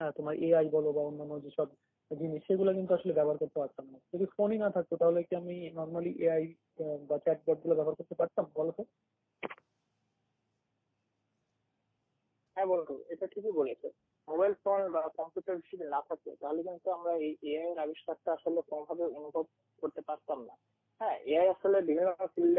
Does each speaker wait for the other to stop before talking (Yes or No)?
Yes